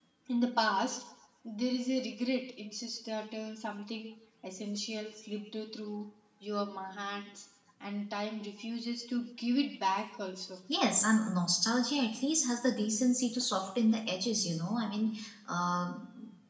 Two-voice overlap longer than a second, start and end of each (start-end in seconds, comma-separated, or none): none